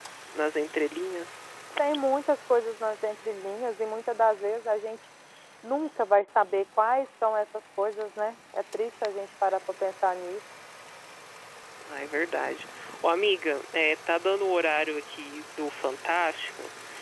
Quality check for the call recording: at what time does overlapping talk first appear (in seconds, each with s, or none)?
none